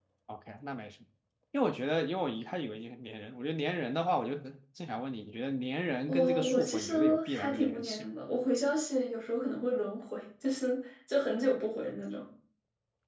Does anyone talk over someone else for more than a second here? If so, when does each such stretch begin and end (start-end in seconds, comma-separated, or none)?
6.1-8.1